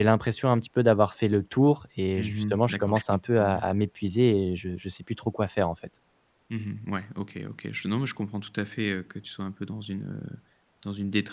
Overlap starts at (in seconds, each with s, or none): 2.2 s